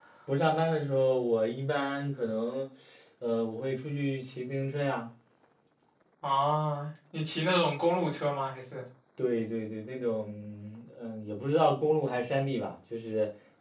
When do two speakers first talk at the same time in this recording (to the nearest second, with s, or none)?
none